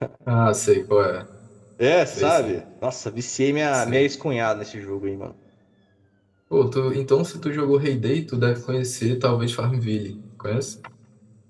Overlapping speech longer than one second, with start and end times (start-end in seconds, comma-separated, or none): none